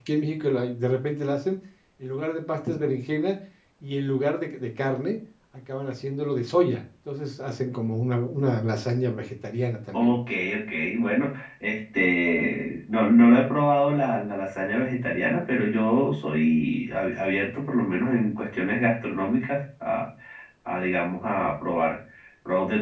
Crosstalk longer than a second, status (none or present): none